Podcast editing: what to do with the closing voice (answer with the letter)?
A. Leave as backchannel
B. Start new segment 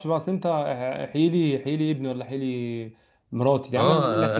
B